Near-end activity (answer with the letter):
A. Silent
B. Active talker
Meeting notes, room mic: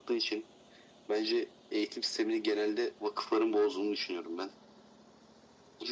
A